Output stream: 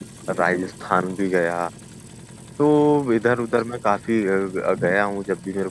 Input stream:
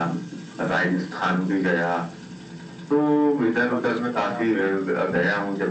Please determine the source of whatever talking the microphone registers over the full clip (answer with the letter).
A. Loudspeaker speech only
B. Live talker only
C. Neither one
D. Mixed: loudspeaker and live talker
D